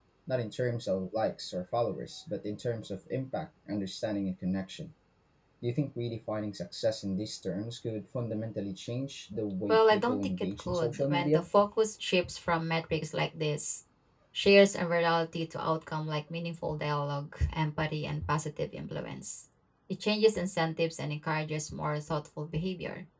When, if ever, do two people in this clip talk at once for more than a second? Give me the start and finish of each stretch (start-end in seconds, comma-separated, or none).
9.7-11.5